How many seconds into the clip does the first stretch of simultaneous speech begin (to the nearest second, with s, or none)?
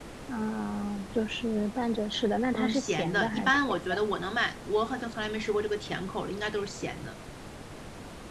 3 s